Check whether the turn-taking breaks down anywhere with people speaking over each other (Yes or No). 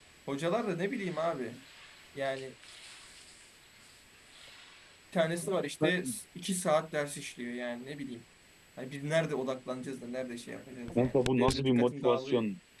Yes